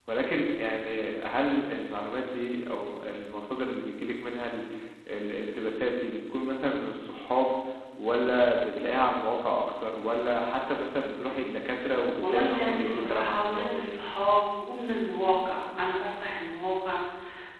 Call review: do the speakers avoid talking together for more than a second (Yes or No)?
No